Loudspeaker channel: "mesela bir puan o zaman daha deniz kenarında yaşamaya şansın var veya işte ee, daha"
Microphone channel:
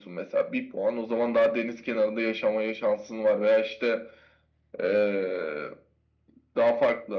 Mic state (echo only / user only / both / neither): echo only